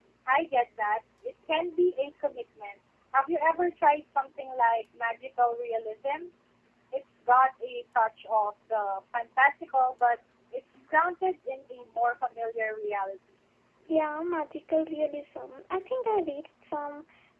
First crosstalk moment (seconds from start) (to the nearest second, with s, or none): none